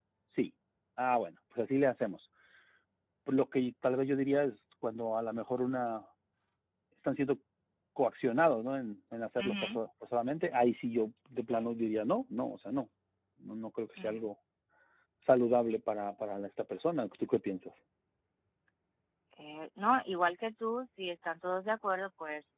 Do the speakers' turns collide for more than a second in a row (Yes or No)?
No